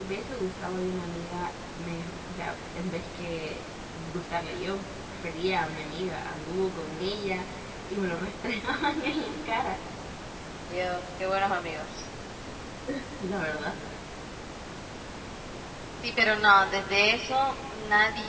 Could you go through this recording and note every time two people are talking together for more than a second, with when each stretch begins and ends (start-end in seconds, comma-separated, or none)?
none